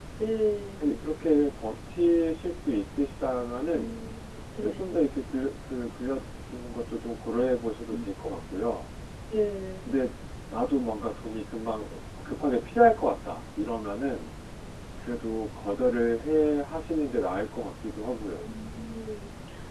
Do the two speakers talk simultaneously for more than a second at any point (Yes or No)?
No